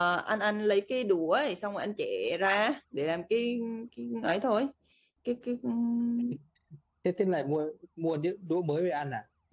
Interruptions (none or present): none